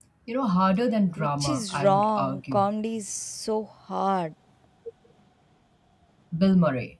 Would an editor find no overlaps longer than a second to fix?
No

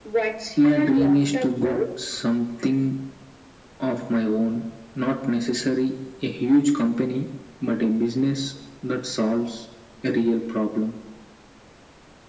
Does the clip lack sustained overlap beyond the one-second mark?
No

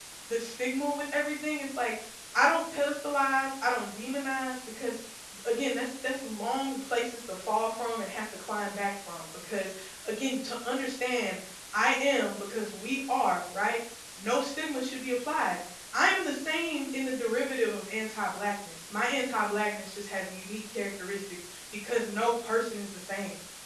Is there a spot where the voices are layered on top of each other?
No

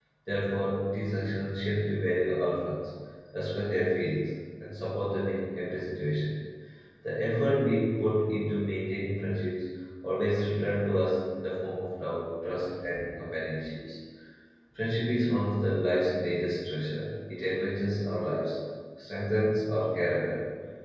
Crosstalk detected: No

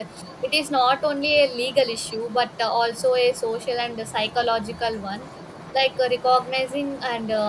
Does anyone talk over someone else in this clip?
No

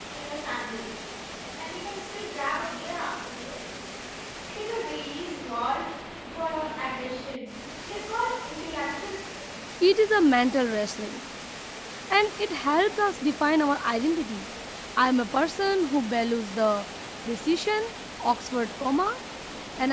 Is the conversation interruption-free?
Yes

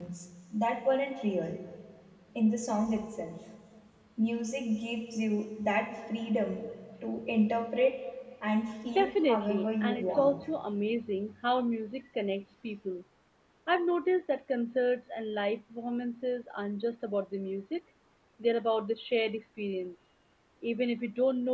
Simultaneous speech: Yes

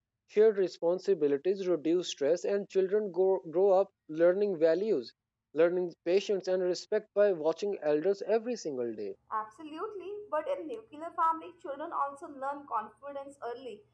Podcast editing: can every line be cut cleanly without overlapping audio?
Yes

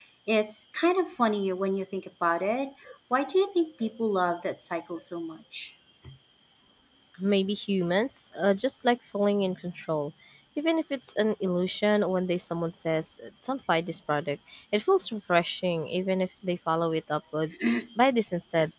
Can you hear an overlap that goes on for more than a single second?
No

